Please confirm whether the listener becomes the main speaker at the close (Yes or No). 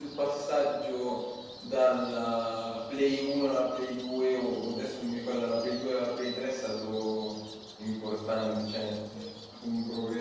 No